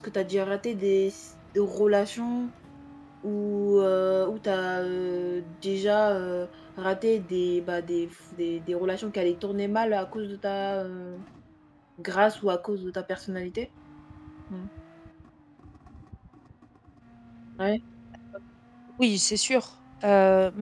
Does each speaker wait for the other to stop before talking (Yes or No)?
Yes